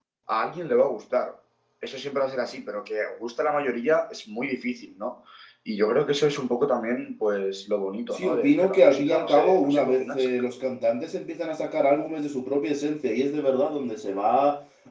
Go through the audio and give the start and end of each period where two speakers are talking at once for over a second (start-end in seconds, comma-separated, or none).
8.1-10.3